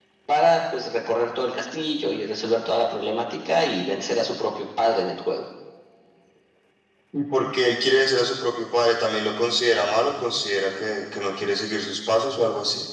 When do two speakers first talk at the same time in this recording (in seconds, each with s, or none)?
none